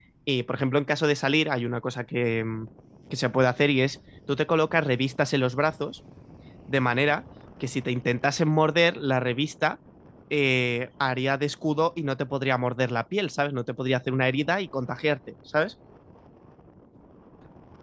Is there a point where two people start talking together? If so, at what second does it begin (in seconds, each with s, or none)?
none